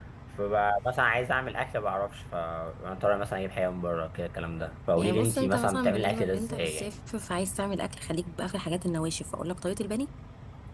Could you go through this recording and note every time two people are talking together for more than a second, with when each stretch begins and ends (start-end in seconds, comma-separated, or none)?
5.0-6.9